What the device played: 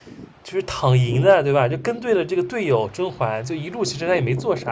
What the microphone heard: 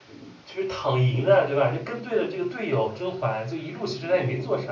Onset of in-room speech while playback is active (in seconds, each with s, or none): none